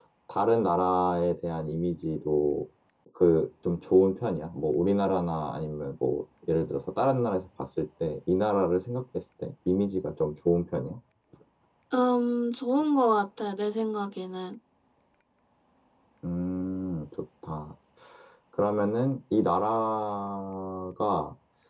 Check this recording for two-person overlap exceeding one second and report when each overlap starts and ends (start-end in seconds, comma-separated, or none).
none